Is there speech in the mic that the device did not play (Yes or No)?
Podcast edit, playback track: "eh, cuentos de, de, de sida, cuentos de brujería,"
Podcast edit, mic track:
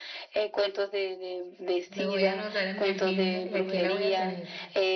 Yes